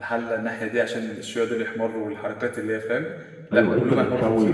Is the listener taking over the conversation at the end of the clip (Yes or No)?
Yes